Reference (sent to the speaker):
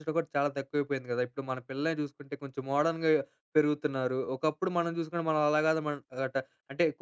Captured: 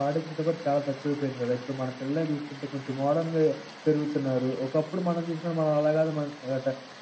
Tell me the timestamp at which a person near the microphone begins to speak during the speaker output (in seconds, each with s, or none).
none